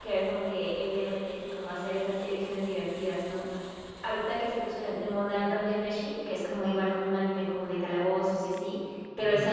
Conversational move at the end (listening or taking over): listening